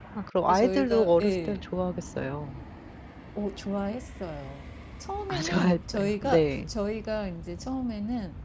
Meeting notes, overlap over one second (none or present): present